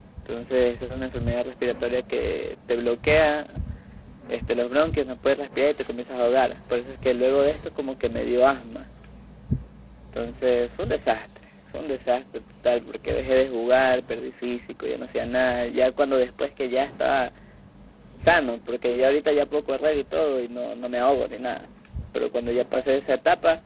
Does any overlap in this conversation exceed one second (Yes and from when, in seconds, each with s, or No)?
No